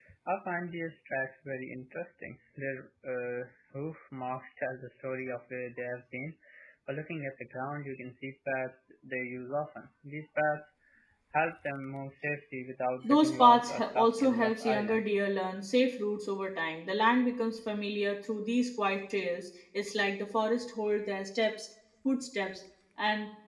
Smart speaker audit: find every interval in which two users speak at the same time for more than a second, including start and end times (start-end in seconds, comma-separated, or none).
13.0-15.0